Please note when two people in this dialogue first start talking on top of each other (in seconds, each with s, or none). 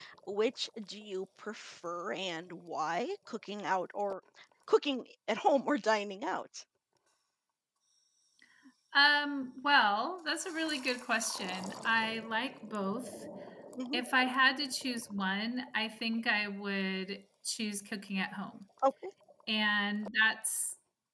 none